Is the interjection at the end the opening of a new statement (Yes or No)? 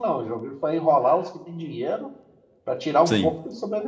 Yes